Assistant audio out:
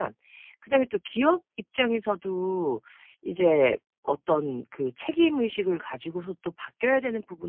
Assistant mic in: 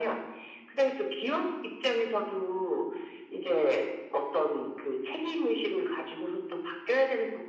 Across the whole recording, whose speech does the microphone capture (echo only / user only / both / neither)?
echo only